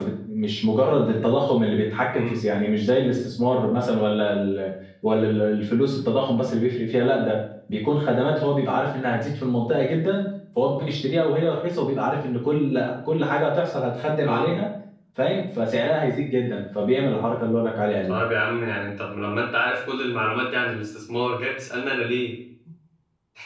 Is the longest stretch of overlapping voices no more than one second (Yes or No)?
Yes